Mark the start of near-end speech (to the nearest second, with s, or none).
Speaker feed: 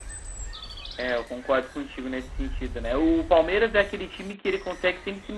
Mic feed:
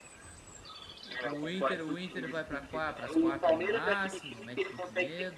1 s